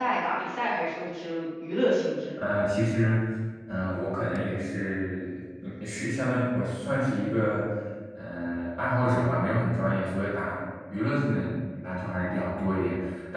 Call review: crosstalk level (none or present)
none